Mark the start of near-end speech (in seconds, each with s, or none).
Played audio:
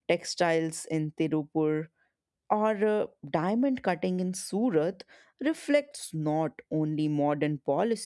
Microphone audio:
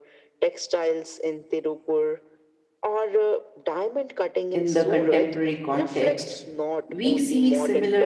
4.5 s